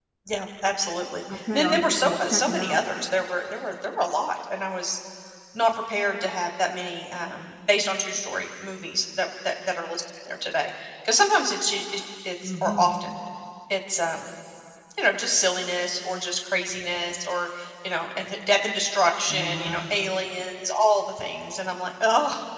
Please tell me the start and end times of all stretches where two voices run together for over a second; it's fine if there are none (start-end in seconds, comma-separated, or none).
1.3-2.9